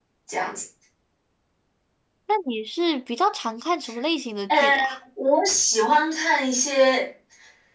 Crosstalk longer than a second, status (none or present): none